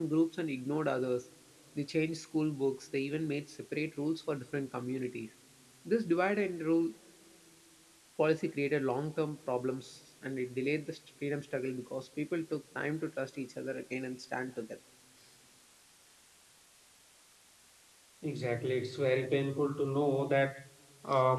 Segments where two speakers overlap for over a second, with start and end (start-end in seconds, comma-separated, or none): none